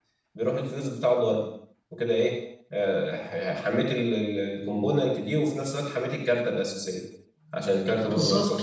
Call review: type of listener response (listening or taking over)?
taking over